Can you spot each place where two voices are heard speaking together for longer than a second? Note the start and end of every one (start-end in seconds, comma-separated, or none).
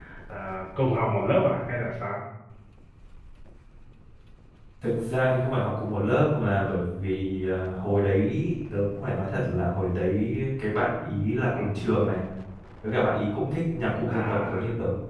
none